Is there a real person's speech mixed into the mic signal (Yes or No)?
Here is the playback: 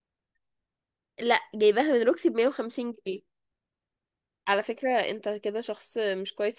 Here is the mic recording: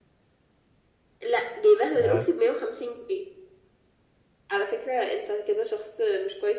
Yes